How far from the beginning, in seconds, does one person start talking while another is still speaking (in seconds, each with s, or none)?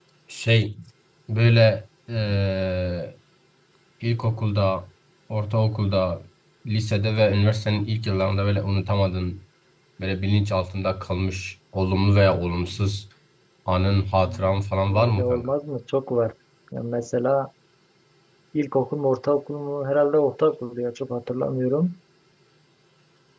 14.2 s